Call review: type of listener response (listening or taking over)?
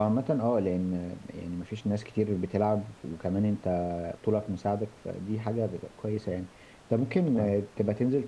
listening